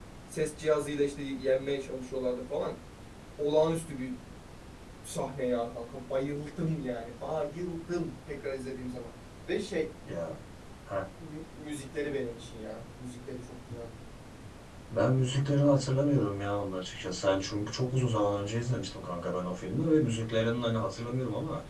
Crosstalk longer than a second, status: none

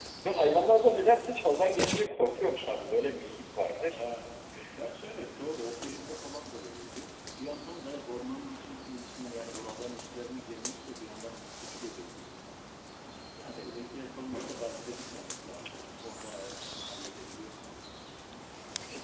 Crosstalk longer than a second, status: none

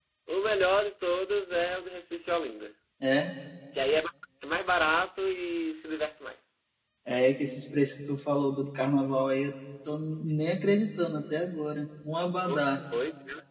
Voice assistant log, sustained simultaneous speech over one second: none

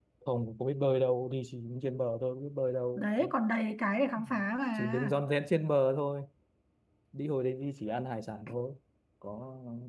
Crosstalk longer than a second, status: none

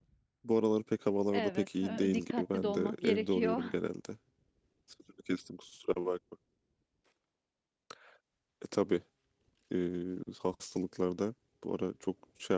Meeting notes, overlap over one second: present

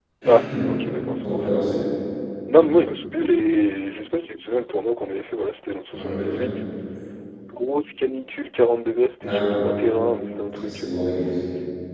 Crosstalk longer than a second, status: none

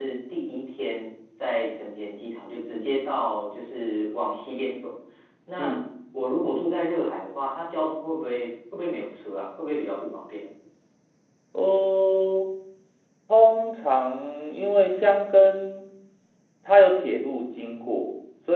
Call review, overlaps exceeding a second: none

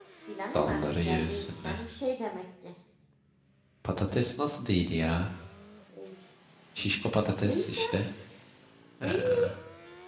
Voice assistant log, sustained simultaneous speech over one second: present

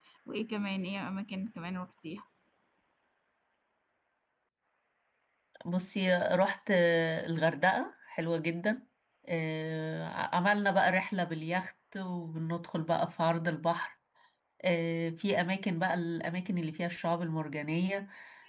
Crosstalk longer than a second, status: none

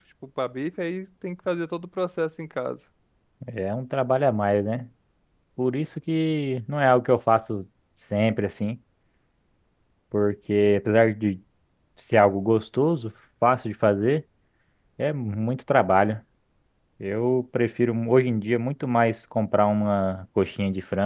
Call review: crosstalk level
none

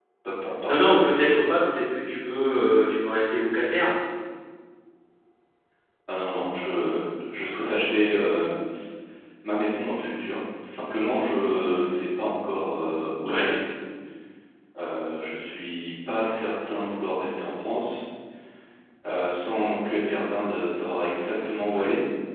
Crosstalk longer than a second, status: none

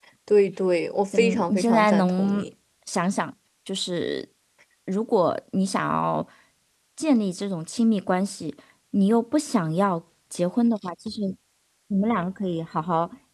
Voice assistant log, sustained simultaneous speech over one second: present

